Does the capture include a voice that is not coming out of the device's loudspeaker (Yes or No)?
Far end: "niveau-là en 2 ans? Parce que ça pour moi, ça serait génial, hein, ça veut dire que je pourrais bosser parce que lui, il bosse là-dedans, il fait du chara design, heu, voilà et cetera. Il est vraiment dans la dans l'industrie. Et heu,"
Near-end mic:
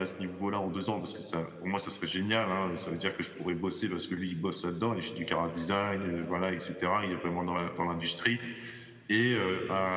No